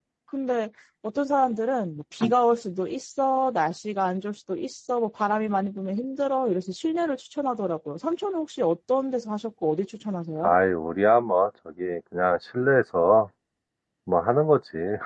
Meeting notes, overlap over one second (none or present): none